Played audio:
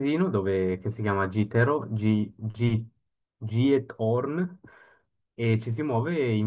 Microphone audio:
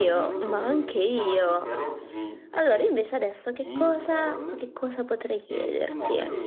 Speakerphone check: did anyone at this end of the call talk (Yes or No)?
Yes